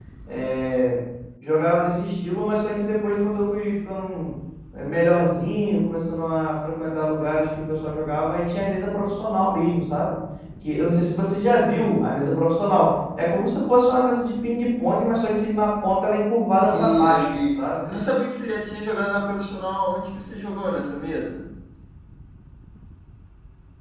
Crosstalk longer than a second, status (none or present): present